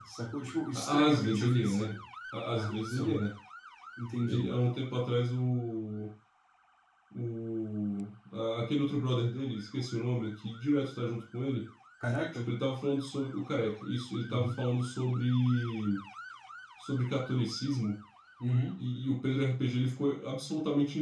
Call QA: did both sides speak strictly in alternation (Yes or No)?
No